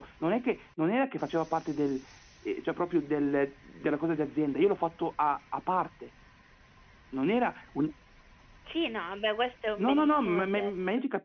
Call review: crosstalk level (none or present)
present